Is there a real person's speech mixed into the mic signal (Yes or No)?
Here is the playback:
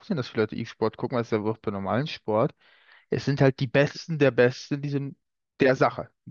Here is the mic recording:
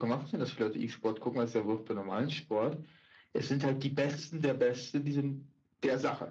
No